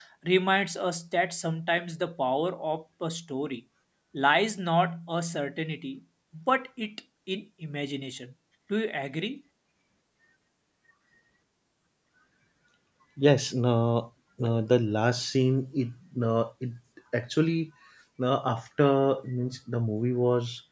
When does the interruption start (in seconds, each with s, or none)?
none